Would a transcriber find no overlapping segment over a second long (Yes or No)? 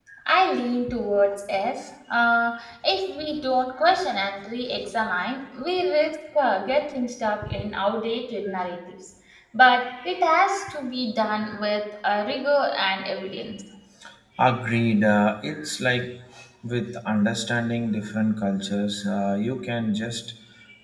Yes